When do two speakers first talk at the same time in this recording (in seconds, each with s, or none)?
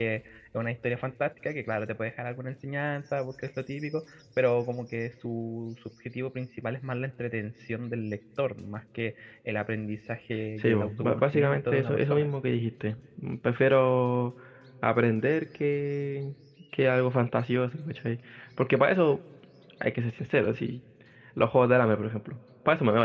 10.6 s